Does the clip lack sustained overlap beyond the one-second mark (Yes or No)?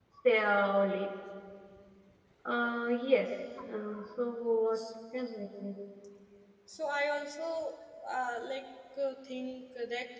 Yes